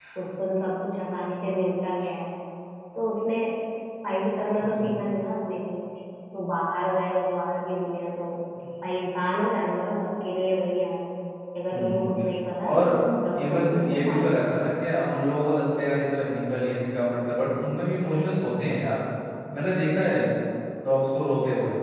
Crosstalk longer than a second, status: present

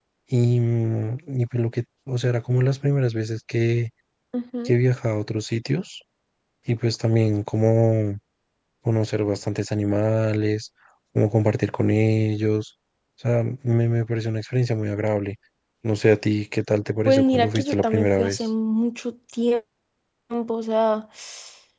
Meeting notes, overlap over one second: present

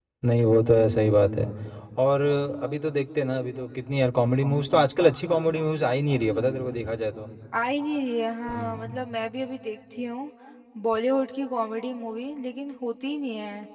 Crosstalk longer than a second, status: none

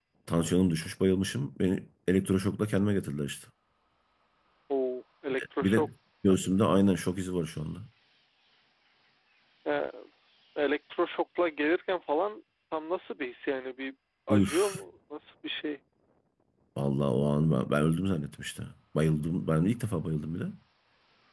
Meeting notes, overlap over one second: none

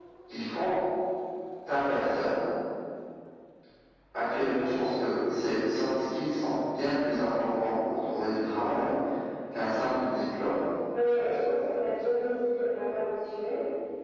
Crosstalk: none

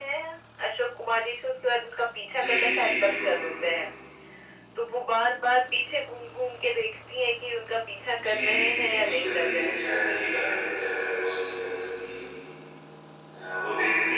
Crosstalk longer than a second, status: present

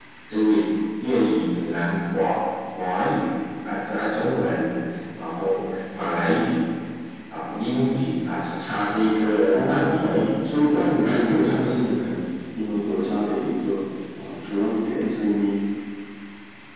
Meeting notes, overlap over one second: present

